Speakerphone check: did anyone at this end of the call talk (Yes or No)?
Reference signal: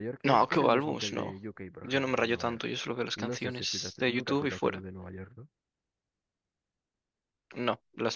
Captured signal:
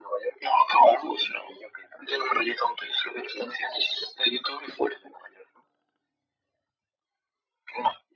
No